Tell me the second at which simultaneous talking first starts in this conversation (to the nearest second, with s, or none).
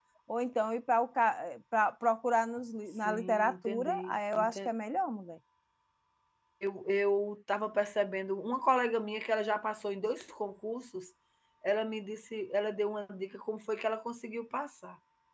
3 s